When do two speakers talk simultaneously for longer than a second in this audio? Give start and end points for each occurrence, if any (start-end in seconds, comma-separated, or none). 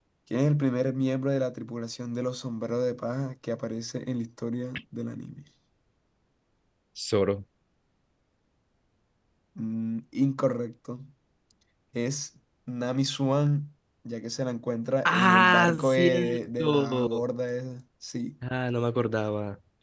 15.1-17.2